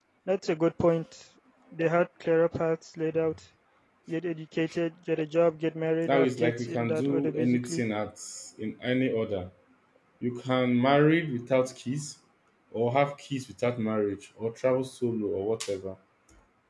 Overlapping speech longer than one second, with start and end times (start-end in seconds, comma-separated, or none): 6.1-7.8